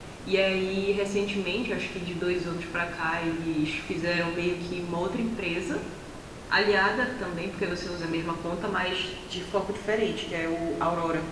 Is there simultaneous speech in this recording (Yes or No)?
No